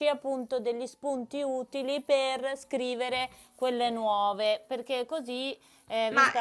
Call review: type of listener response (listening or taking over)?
taking over